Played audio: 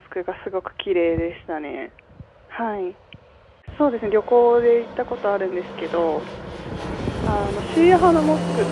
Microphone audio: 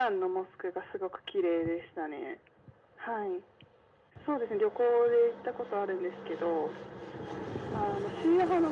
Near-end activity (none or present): none